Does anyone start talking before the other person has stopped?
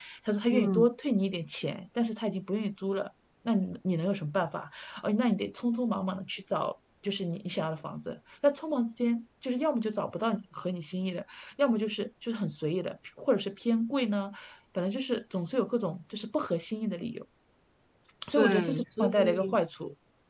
Yes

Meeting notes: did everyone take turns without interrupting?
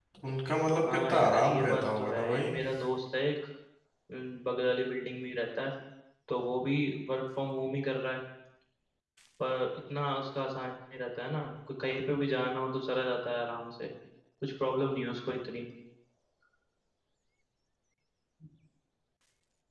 No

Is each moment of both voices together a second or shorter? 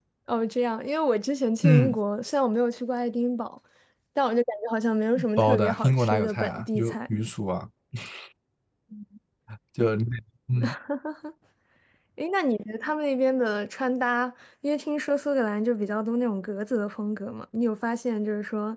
No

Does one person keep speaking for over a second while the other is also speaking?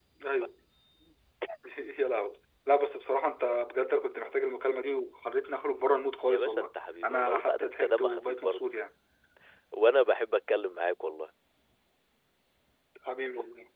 Yes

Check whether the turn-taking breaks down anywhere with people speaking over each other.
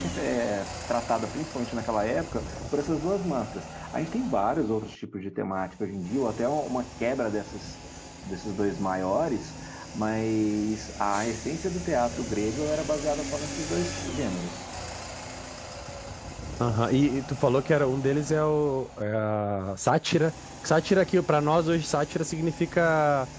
No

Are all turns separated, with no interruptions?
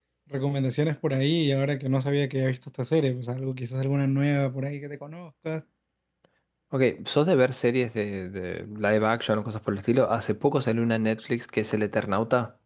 Yes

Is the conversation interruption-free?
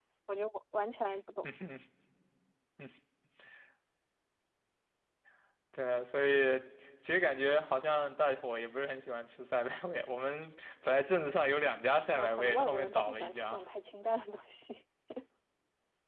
No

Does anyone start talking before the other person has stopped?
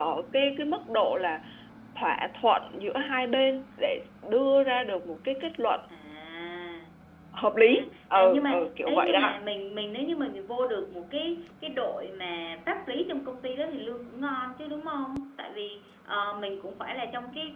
Yes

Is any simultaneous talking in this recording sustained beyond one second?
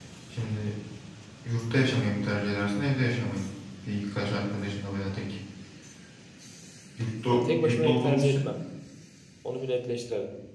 Yes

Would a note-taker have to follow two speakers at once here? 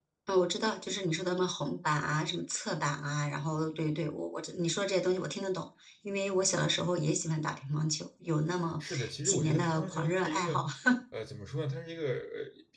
Yes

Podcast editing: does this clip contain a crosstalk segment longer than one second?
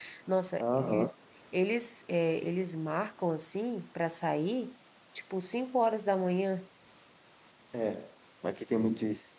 No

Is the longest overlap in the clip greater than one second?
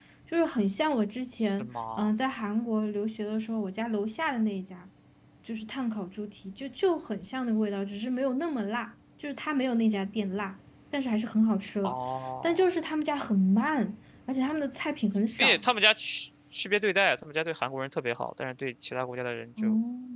No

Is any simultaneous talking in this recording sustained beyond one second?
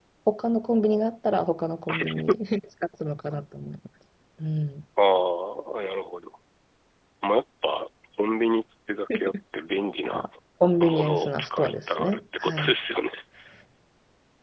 Yes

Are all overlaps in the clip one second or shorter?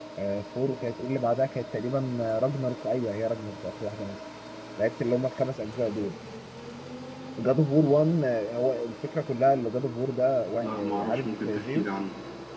No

